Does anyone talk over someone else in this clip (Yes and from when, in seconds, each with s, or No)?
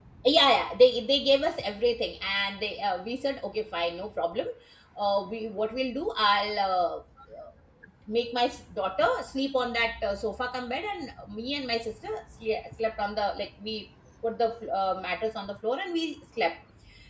No